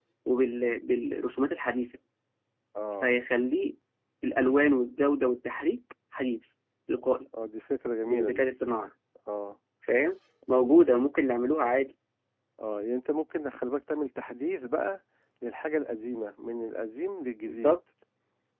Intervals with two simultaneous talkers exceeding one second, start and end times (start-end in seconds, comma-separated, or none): none